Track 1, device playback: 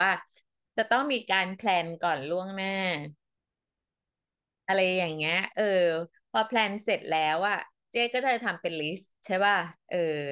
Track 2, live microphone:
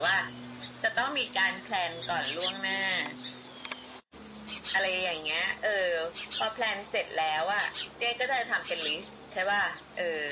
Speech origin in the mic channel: echo only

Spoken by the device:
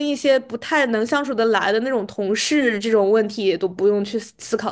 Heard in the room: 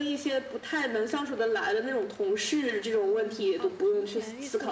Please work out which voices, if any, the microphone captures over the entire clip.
both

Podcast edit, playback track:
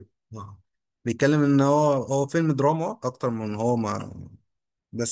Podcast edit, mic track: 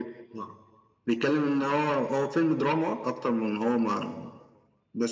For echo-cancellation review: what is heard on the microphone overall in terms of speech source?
echo only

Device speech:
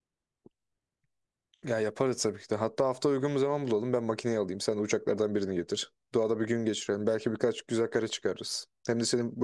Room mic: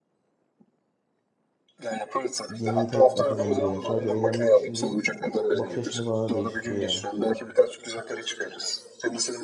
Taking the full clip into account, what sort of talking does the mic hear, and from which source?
both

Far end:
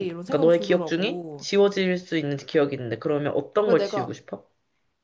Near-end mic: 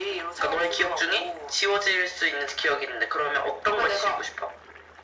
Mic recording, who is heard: echo only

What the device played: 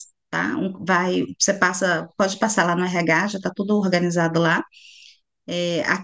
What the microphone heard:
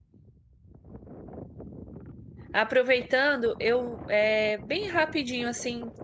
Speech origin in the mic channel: user only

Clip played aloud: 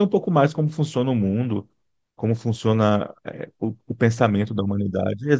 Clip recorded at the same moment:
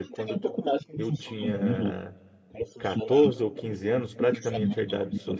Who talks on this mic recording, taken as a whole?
both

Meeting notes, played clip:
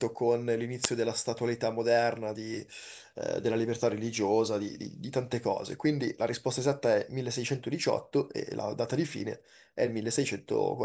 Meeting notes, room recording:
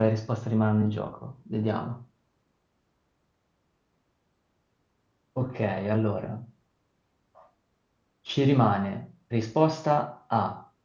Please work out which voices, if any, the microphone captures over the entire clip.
user only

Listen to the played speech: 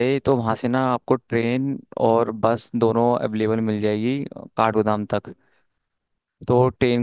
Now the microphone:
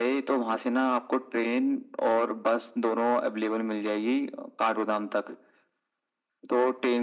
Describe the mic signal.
echo only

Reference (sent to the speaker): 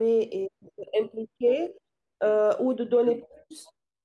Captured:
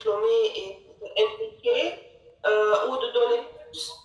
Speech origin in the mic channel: echo only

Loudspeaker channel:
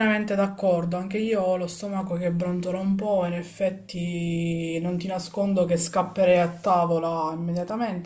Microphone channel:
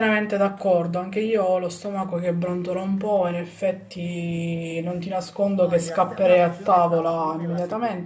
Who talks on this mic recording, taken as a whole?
both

